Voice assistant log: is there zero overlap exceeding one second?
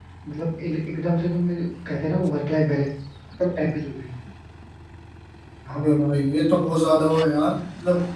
Yes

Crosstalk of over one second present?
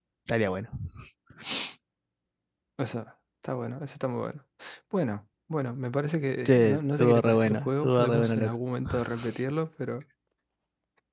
Yes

